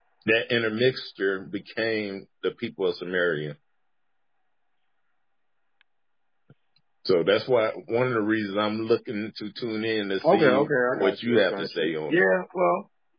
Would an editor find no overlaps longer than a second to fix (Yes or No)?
No